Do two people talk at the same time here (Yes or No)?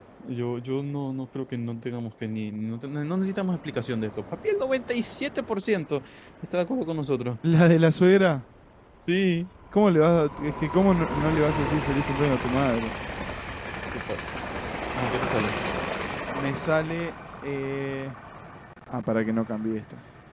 No